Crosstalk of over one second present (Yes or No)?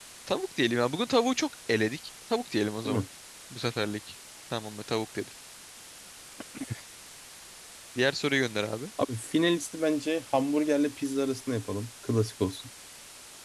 No